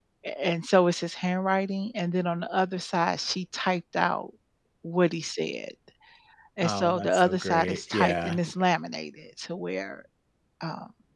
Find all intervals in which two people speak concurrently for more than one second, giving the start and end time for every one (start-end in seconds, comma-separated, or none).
6.6-8.4